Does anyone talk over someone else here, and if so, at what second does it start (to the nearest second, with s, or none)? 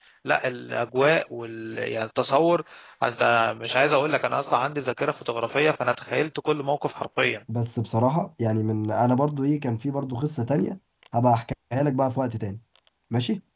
none